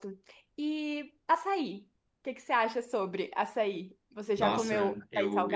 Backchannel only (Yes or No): No